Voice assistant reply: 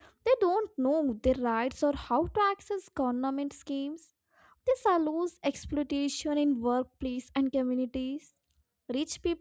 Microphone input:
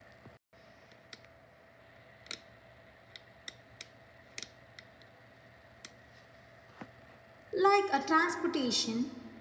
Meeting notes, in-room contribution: present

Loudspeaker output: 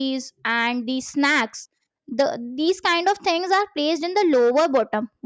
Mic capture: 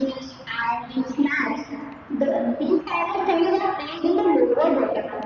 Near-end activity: none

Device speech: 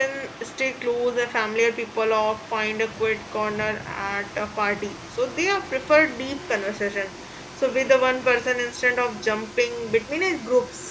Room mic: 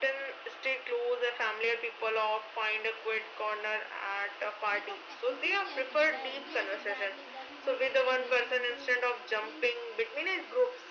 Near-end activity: present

